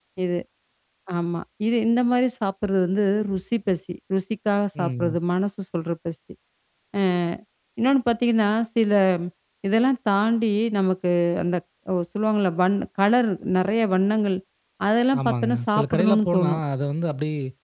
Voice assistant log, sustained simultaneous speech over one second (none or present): present